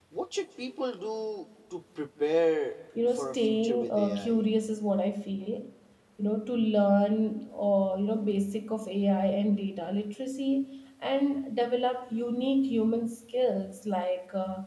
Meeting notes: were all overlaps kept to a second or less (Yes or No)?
No